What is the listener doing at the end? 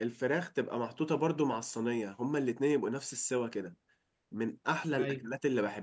listening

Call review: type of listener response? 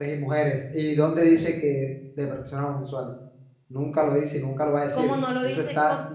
taking over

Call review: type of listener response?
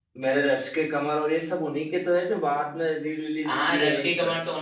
taking over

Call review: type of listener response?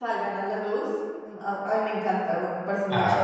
taking over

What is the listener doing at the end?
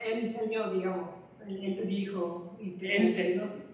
taking over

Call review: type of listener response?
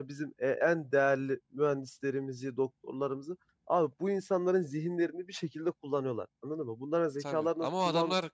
taking over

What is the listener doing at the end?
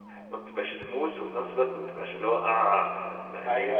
taking over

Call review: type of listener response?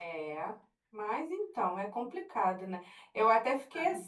listening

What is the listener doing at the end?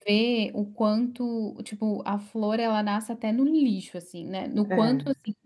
listening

